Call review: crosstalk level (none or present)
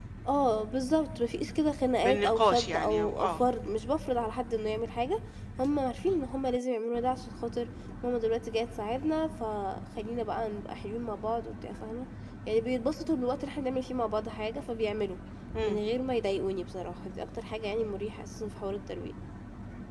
present